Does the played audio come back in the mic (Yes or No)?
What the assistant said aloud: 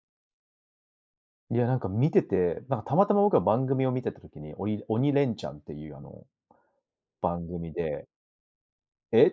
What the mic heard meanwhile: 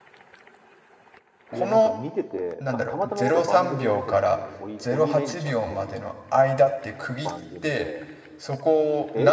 Yes